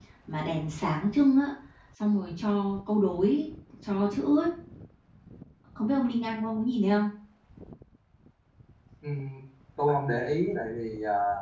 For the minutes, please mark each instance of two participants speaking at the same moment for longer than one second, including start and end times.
none

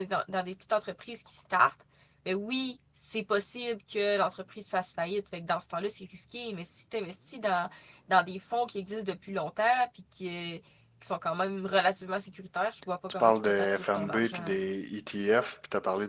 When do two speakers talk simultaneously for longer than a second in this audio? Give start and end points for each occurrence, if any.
13.2-14.6

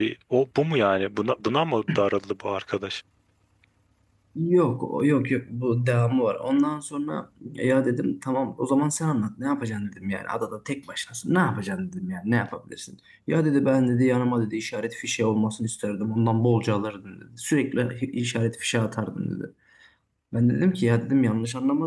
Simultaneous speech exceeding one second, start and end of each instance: none

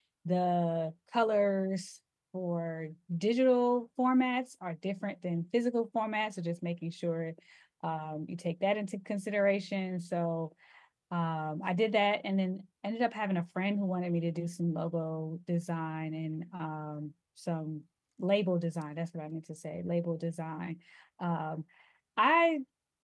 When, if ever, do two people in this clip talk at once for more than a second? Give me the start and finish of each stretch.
none

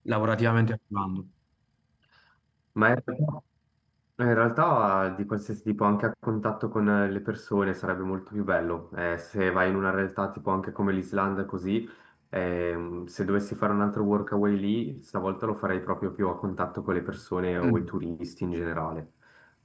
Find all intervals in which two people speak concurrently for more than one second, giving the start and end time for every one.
none

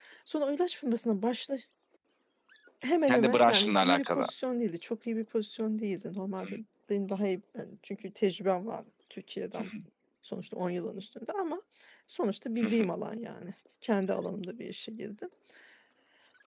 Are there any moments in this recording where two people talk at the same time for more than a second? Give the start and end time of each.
3.1-4.3

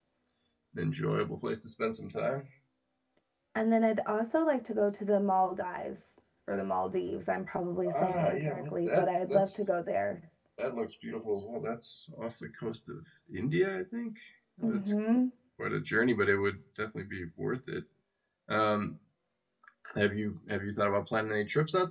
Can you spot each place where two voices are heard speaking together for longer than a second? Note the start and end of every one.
8.0-9.7

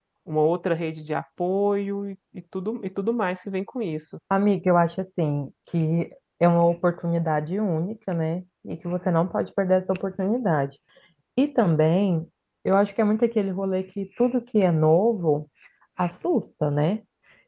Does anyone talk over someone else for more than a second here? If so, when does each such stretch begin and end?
none

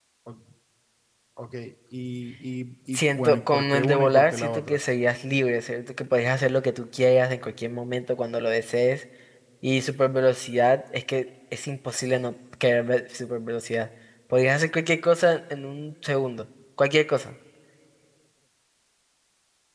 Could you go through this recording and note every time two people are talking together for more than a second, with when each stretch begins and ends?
2.9-4.8

